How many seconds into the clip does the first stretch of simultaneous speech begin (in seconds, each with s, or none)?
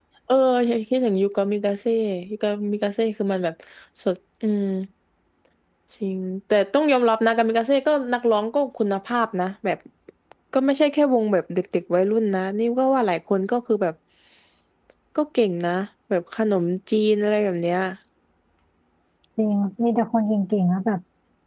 none